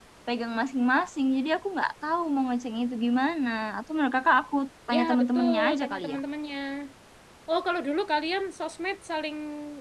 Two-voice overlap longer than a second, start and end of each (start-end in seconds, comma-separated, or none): 4.9-6.2